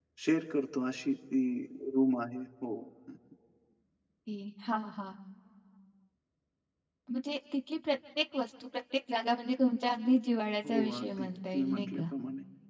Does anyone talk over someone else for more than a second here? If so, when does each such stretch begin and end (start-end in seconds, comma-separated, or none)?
10.7-12.0